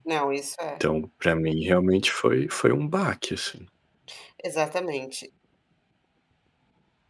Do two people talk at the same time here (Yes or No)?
No